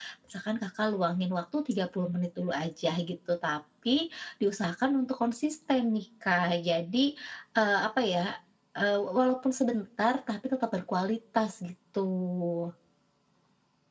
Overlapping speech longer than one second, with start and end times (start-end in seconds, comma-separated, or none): none